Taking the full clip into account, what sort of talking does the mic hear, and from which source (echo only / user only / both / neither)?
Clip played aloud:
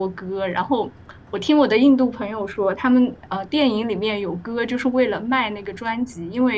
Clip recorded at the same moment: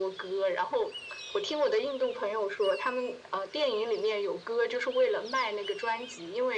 echo only